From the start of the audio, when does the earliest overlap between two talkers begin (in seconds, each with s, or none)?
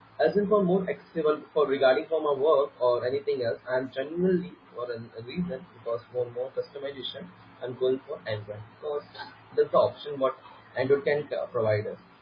none